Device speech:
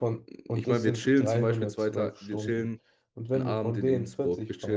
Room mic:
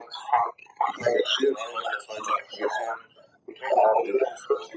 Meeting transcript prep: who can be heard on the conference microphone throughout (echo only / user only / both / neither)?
echo only